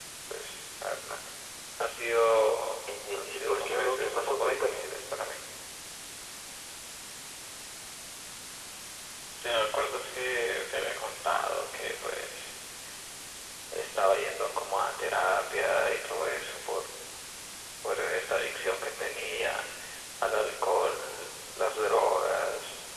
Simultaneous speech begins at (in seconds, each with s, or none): 3.1 s